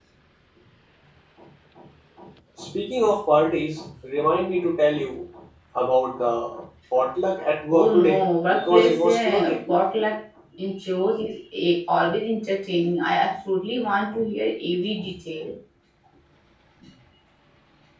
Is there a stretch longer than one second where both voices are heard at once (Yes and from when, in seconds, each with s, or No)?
Yes, from 7.7 s